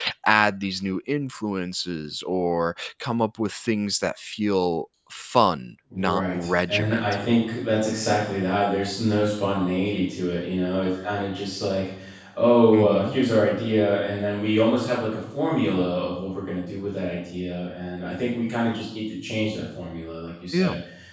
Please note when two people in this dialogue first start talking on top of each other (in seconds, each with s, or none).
6.0 s